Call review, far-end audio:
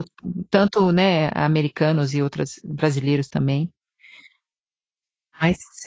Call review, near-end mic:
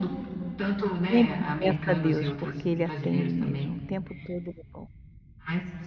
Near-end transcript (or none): Sempre peça a Deus, porque Ele atende mesmo, o tempo todo, Ele é bom.